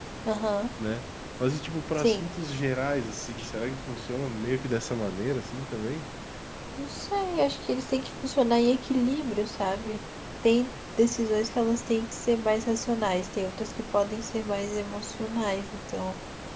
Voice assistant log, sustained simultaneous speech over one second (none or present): none